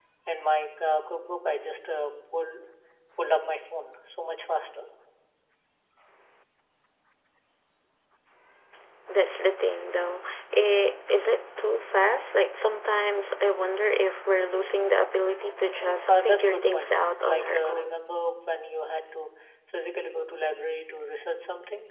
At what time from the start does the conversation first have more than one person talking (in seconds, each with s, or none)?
16.1 s